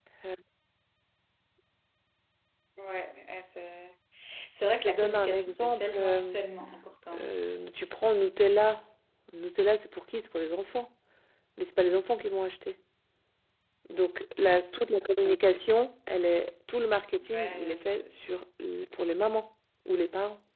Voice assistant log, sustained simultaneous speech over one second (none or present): present